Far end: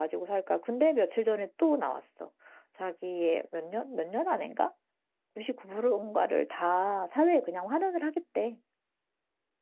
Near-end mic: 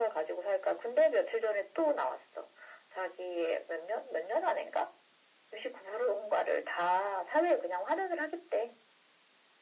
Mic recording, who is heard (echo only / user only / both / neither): echo only